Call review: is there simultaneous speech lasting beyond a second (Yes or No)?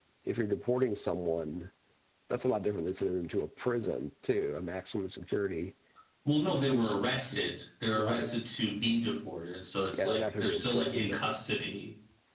Yes